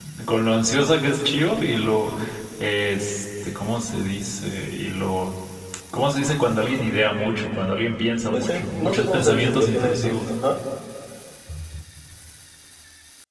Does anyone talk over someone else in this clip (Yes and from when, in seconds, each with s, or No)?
Yes, from 8.3 s